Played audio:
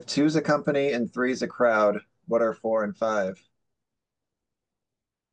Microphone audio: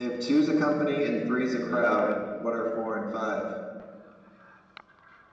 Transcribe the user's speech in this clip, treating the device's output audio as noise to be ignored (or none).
Are you ready for it?